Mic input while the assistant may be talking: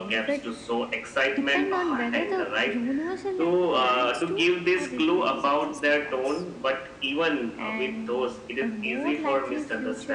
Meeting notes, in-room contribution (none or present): none